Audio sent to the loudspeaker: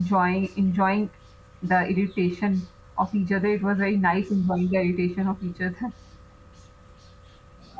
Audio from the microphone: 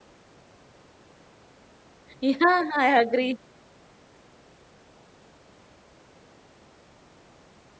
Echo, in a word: none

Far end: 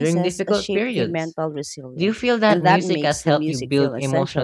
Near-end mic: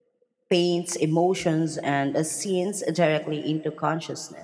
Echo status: none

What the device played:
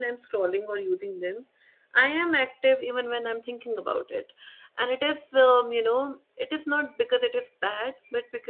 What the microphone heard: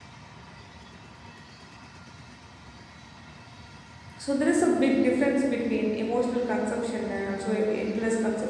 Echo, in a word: none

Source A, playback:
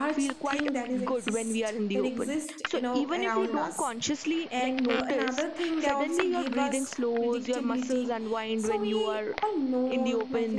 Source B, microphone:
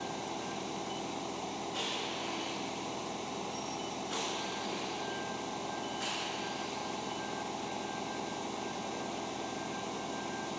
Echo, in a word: none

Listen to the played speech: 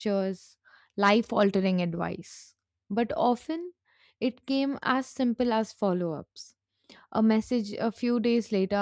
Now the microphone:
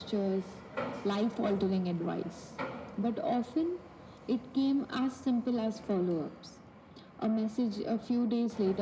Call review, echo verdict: present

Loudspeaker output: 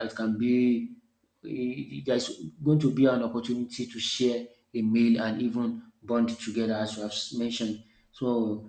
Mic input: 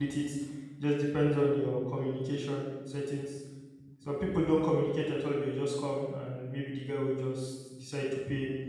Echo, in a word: none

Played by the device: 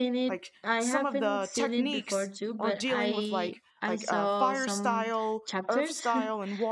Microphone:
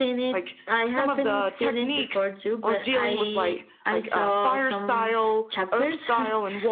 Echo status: present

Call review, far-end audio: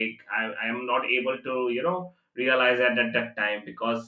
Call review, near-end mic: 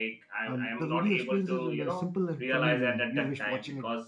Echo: present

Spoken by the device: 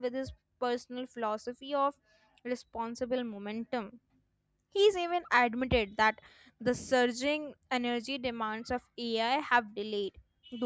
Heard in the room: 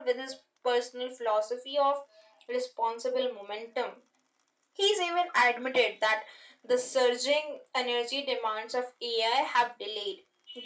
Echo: present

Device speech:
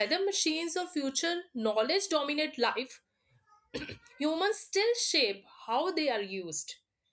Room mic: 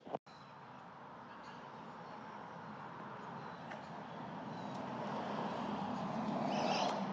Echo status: none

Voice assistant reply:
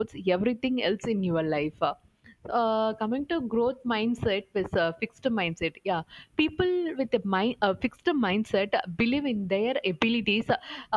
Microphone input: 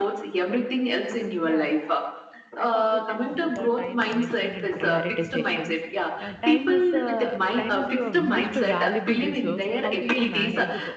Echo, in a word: present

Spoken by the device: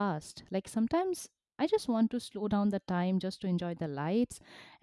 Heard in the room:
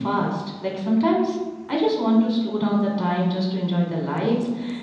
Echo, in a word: present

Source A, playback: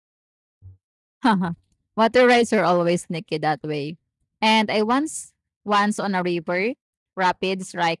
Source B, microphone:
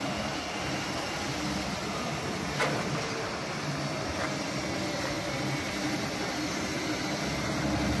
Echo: none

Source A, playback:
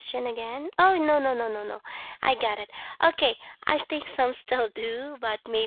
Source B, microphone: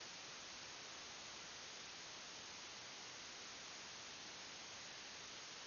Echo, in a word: none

